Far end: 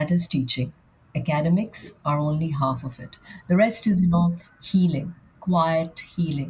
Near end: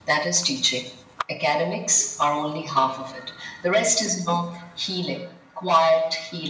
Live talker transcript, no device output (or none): none